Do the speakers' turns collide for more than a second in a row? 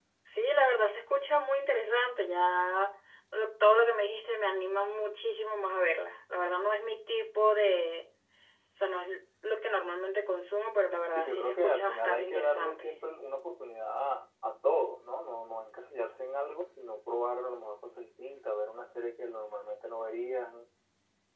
Yes, from 11.2 s

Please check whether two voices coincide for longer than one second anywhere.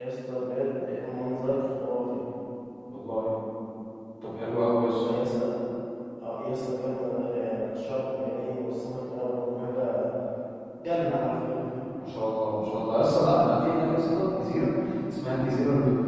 No

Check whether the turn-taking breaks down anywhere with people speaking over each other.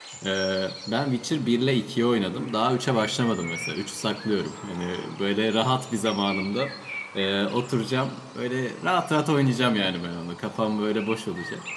No

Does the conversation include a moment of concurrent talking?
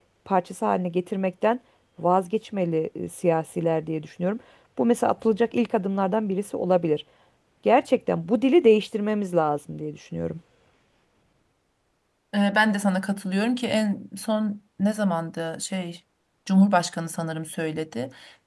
No

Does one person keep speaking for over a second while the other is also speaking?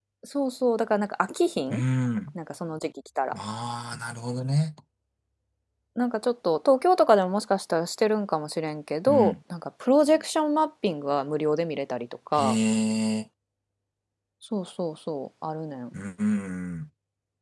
No

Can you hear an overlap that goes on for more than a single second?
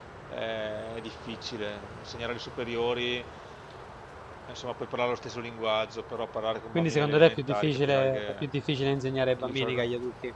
Yes, from 6.7 s

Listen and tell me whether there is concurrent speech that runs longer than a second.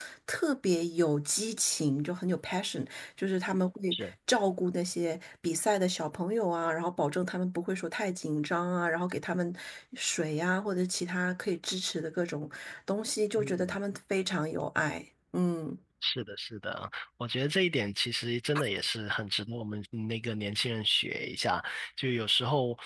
No

